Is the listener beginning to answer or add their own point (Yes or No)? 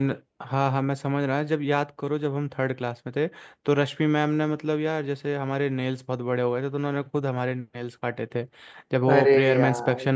No